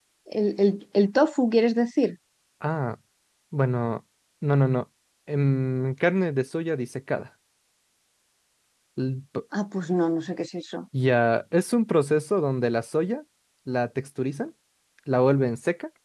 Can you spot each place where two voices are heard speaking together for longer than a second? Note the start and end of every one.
none

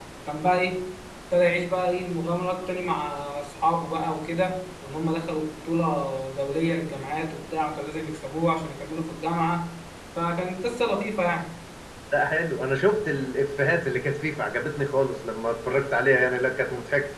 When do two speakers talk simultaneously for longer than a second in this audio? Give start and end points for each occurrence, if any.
none

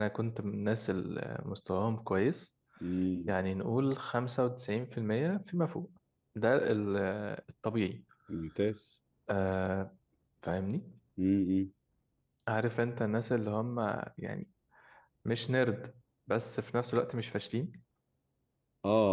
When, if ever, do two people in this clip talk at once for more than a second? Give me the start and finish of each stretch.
none

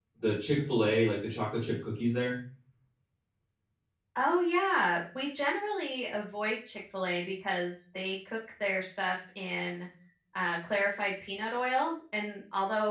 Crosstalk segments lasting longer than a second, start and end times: none

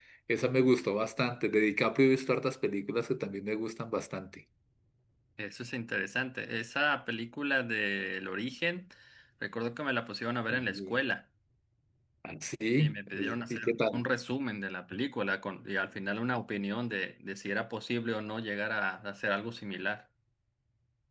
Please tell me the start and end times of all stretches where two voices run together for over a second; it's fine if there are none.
12.8-14.0

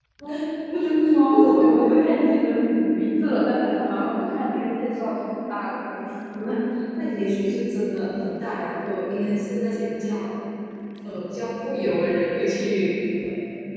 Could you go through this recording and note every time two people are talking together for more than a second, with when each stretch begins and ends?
0.8-2.1

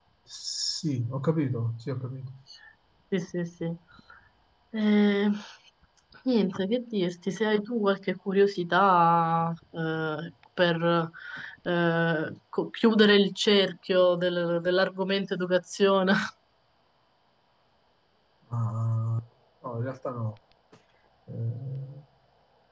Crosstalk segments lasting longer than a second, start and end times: none

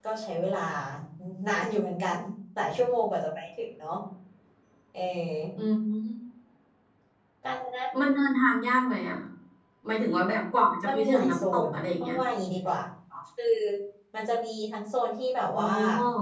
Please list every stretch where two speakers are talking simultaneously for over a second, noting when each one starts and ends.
10.9-12.2

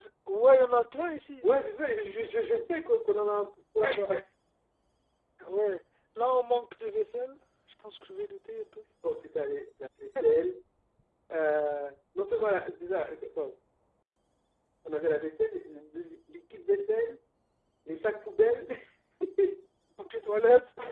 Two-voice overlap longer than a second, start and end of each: none

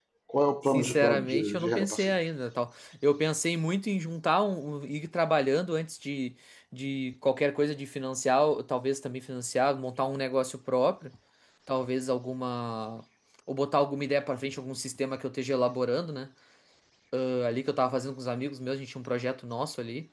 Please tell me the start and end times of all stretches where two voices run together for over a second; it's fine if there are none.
0.7-2.1

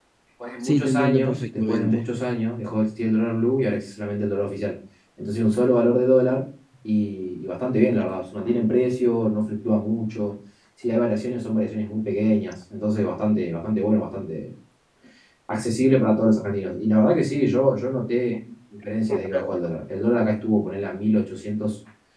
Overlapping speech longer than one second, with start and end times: 0.6-2.0

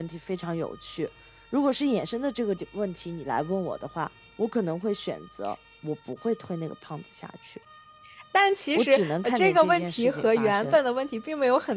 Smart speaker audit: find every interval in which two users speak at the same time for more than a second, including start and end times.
8.8-10.8

